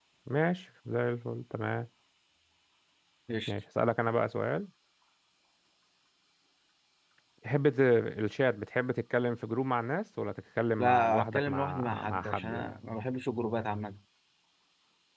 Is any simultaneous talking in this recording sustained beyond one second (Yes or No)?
Yes